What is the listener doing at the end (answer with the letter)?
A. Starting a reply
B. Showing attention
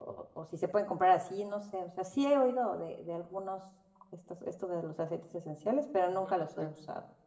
A